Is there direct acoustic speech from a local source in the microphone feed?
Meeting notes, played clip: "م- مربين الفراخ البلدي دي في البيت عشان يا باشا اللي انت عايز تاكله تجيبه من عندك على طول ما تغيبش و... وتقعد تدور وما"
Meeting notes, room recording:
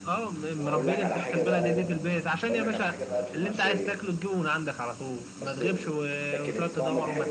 Yes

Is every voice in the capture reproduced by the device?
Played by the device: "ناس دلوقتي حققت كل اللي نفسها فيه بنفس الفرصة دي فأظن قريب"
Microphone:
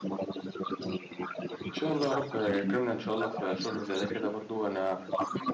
No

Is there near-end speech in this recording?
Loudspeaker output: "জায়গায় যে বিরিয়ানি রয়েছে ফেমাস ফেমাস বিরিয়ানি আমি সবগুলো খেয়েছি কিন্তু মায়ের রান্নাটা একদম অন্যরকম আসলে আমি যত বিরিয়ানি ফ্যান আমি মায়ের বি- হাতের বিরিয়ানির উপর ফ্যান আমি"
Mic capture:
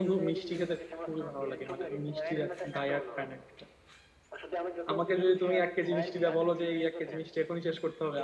Yes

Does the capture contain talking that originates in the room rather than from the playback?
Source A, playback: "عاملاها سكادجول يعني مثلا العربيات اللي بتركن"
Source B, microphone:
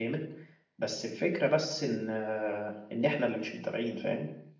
Yes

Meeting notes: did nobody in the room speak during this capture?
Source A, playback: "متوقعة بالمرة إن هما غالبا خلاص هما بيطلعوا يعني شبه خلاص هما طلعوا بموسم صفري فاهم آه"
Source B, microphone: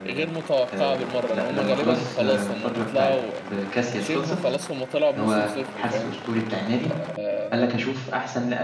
No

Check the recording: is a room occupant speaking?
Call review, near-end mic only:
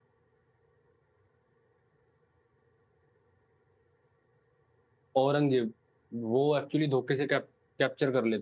Yes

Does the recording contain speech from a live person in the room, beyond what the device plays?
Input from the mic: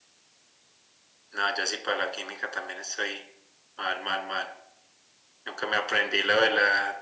No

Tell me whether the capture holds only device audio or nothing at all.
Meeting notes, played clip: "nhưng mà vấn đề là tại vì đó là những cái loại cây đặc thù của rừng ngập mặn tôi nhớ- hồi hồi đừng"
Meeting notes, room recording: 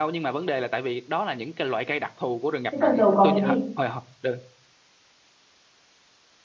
No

